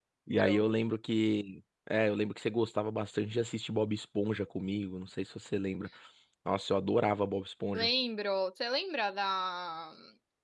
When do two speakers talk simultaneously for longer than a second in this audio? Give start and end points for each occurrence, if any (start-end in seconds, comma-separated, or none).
none